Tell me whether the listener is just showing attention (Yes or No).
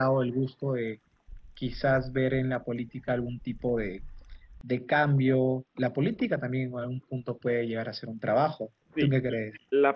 No